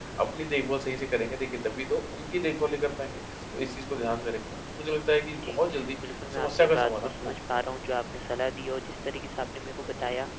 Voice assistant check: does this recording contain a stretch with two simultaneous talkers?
Yes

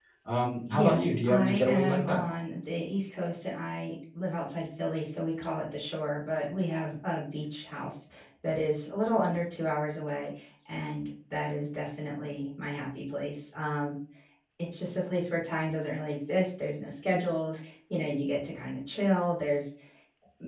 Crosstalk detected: Yes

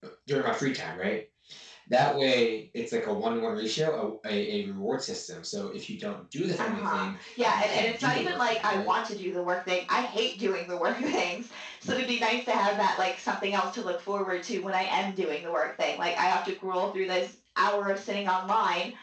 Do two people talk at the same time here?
Yes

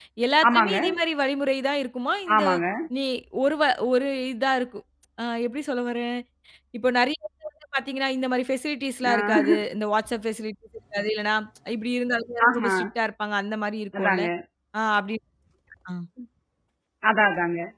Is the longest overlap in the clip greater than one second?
No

